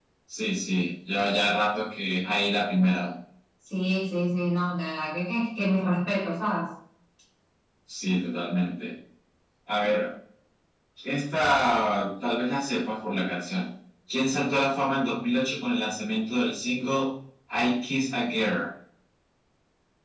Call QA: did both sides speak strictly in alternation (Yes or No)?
Yes